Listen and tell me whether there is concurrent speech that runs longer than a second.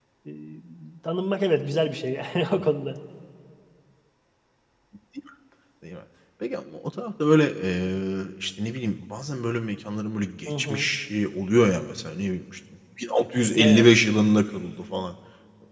No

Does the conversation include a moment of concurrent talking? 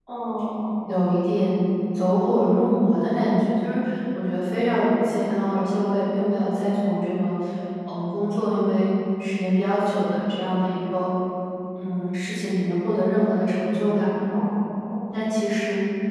No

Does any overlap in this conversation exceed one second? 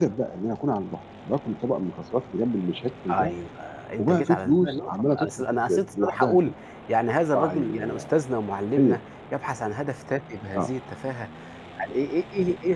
Yes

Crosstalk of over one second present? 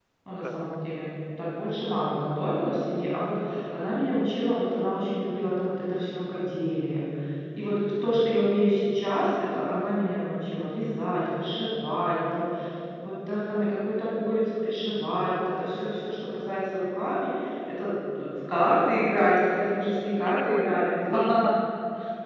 Yes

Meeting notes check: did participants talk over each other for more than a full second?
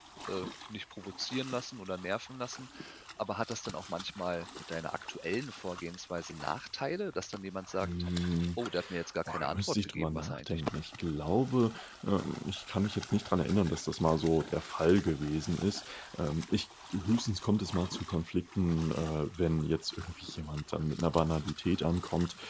Yes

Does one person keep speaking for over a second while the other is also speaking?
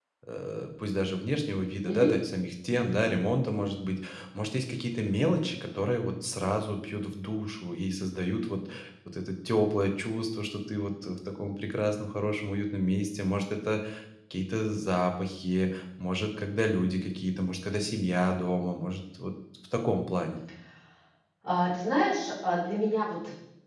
No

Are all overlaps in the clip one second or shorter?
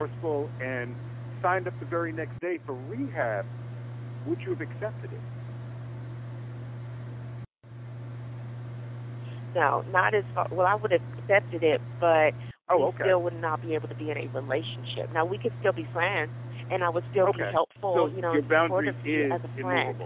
No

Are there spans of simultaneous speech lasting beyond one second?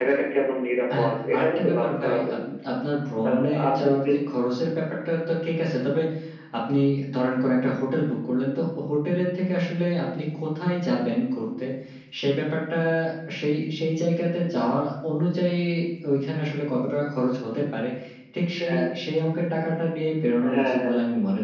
Yes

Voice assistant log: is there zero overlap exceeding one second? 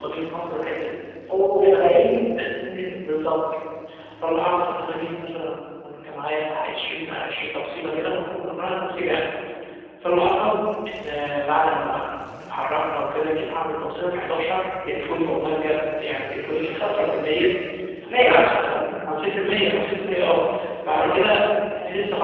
Yes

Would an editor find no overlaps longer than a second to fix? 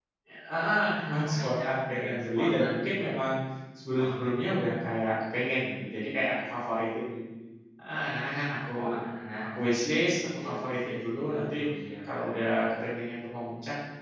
No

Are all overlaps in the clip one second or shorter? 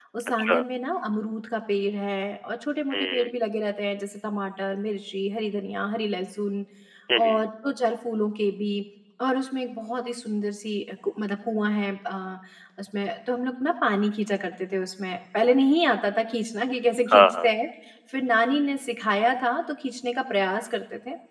Yes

